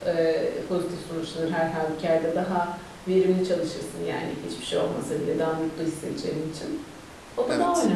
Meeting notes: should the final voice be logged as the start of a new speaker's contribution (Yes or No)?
No